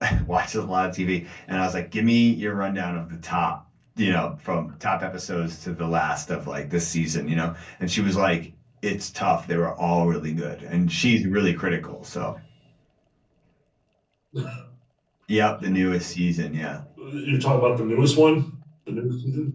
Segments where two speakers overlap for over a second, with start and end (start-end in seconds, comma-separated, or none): none